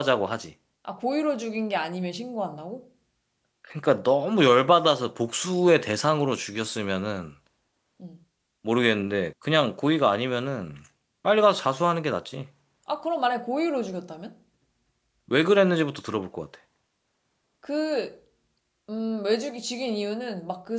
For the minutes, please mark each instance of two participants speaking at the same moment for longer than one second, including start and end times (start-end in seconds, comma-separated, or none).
none